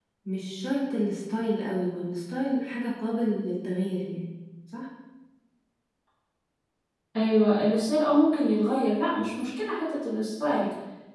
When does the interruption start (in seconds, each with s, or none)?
none